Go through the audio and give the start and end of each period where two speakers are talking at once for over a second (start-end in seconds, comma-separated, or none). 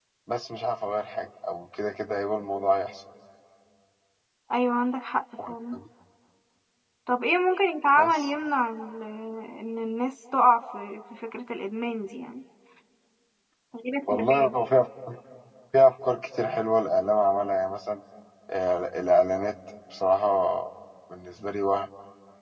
none